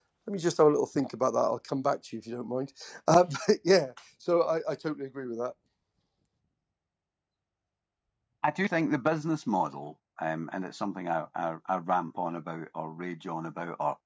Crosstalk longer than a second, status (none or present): none